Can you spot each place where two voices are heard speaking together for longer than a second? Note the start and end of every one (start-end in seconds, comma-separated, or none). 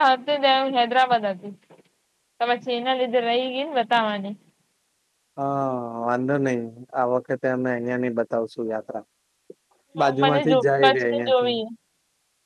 10.2-11.5